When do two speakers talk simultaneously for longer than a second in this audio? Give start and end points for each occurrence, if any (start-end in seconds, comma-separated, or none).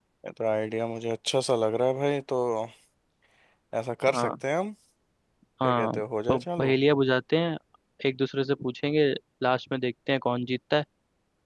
none